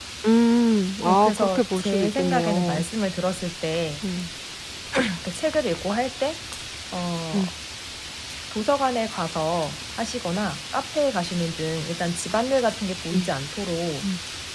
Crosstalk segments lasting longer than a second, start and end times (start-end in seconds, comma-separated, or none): 1.0-2.8